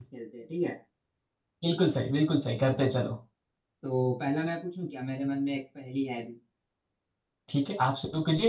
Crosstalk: none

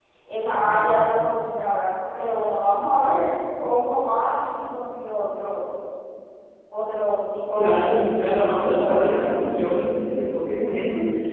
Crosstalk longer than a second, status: present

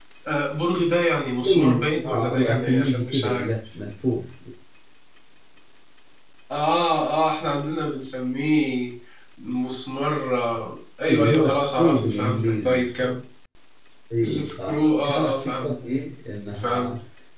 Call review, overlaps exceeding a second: present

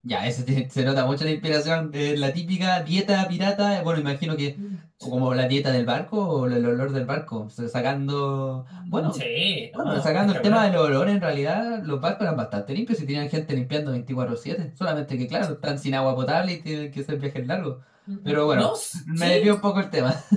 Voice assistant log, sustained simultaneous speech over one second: present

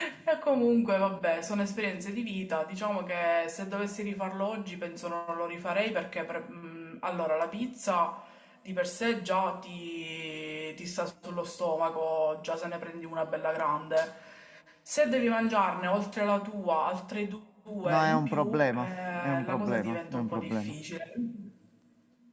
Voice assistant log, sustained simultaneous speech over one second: present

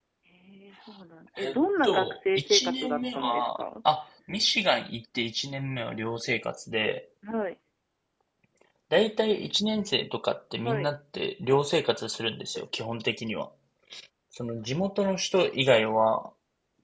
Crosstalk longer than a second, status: present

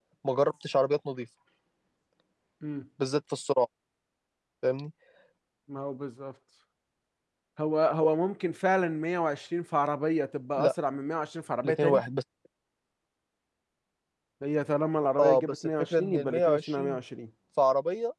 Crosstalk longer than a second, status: present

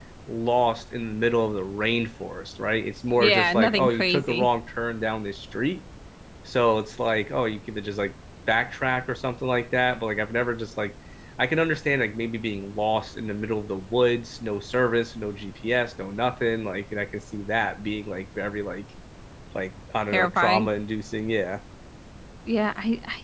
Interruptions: present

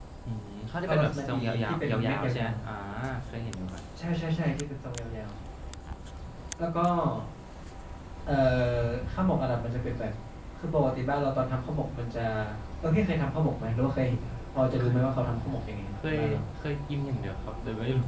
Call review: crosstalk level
present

